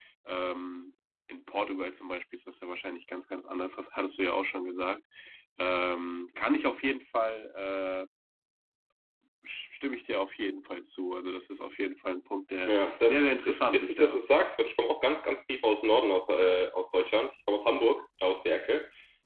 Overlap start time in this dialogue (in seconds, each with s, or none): 12.7 s